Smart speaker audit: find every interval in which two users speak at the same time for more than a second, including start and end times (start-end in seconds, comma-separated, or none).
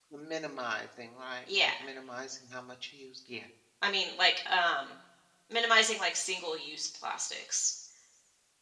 none